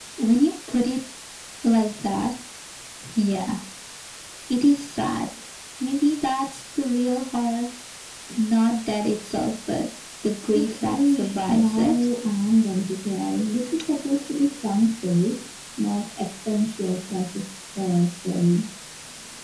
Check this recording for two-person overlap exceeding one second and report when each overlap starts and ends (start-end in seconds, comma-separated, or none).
10.5-11.9